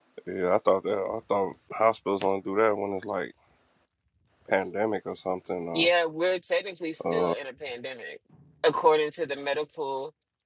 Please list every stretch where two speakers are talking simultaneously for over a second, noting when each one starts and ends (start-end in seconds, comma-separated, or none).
none